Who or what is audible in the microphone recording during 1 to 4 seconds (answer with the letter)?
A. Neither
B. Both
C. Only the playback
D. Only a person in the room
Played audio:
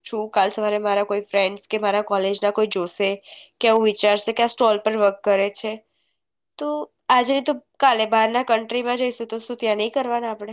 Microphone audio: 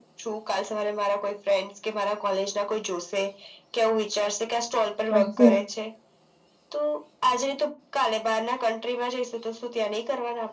C